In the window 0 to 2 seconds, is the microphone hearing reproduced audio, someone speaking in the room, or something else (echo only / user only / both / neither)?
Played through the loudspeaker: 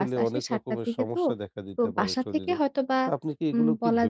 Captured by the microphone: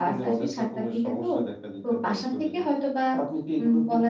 echo only